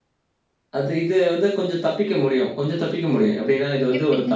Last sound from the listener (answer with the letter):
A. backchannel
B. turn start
A